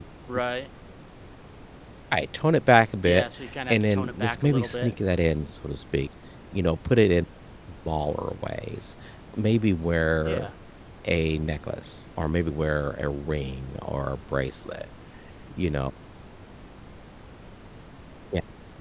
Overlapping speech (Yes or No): Yes